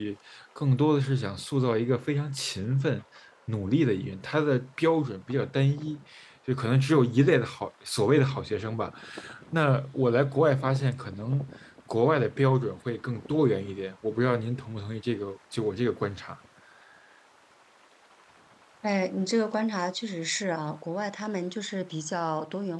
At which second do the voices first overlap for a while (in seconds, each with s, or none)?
none